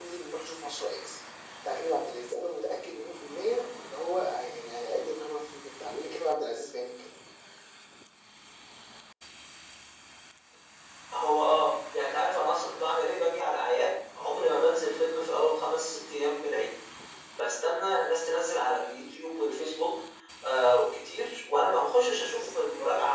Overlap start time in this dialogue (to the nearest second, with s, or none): none